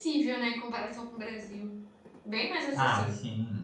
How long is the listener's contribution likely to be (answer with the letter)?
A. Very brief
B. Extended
B